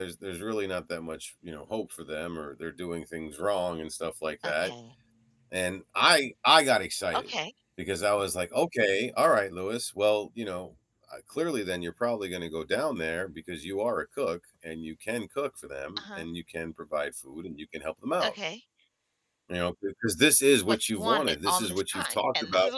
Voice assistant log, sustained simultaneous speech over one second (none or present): present